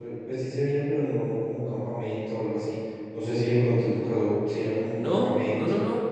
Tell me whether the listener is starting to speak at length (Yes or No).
Yes